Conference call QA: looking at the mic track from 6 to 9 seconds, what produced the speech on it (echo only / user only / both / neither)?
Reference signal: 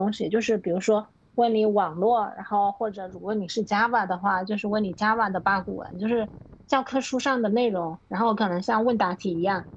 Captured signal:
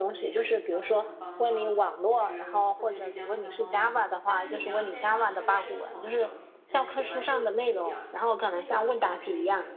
both